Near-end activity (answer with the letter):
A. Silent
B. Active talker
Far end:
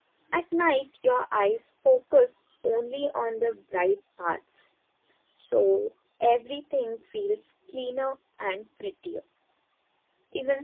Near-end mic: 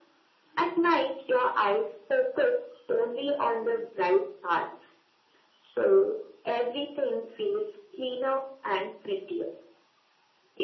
A